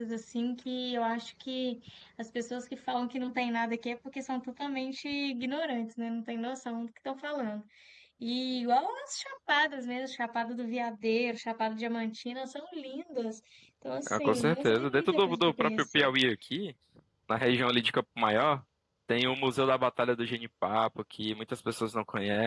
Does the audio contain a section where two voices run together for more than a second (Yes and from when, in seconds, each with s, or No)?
Yes, from 14.1 s